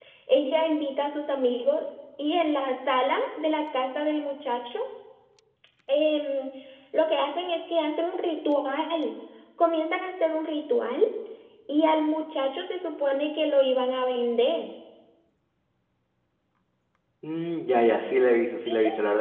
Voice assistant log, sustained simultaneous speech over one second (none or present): none